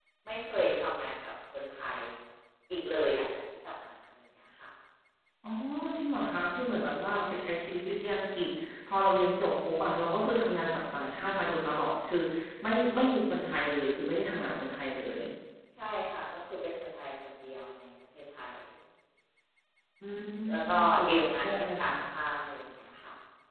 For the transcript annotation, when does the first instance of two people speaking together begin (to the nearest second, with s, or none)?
20 s